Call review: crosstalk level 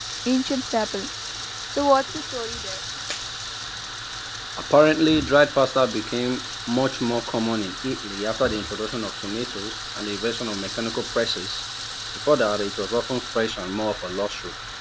none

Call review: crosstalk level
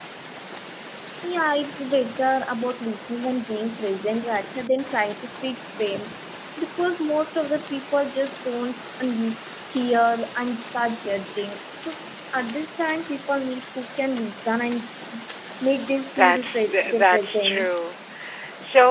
present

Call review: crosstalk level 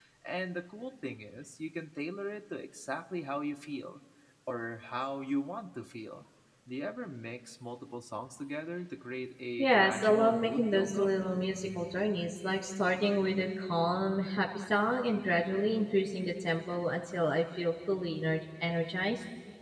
present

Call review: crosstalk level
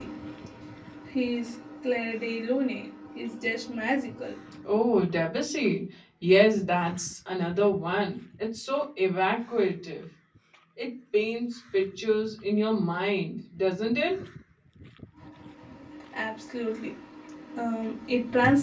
none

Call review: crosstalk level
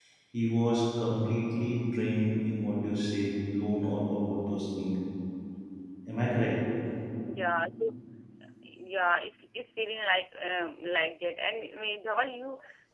none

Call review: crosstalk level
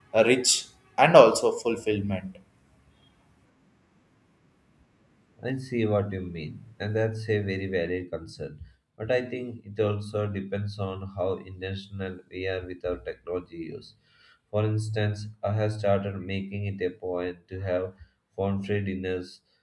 none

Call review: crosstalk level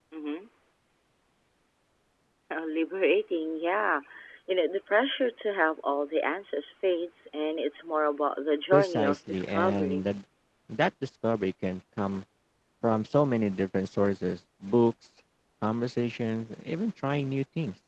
present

